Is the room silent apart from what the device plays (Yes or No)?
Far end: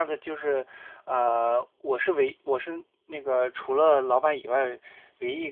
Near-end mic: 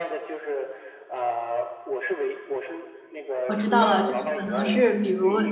No